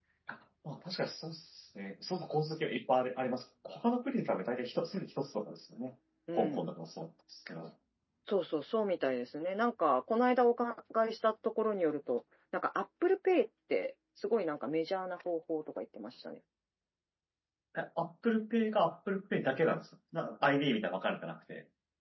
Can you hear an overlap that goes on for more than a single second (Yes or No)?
No